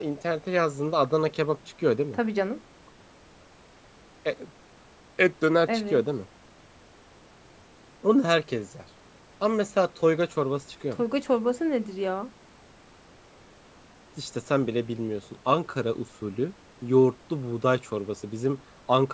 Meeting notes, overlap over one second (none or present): none